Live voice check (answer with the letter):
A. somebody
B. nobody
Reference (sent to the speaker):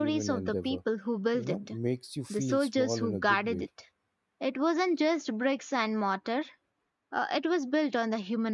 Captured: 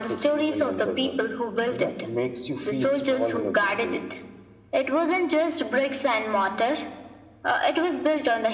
B